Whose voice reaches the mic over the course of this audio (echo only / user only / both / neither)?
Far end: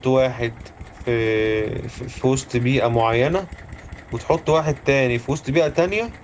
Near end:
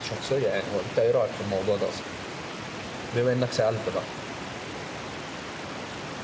user only